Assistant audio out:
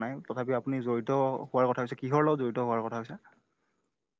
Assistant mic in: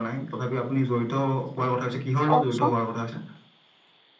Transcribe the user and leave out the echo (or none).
কওকচোন?